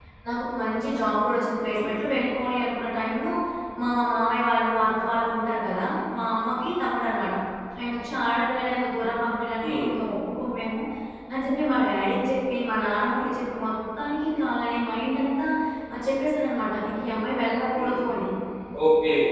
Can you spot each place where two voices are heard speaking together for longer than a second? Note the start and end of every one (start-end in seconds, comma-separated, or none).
none